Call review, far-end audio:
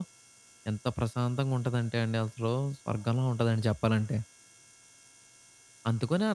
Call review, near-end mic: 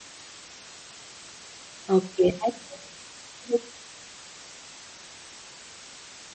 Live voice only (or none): ఓకే. అయితే హ్మ్.